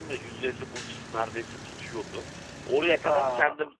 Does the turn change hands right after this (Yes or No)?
No